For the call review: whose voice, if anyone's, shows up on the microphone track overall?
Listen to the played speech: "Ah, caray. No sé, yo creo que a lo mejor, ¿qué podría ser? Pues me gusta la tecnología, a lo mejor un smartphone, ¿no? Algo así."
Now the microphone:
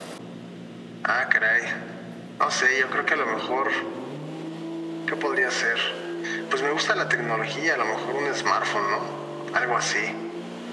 echo only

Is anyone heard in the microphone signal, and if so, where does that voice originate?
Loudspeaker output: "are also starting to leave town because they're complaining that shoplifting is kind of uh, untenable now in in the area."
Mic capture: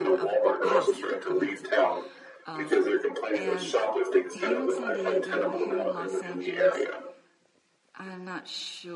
both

